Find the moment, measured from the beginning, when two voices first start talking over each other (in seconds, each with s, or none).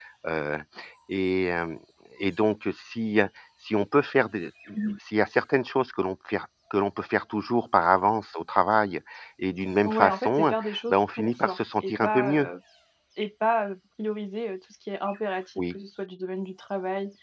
9.8 s